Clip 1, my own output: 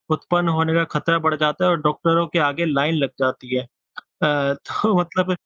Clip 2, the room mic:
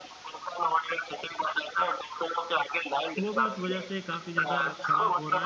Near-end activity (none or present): present